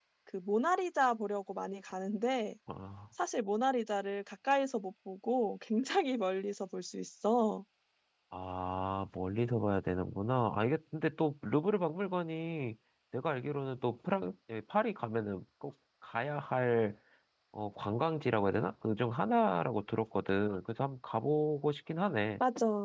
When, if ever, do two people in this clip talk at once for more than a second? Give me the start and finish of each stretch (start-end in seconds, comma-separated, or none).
none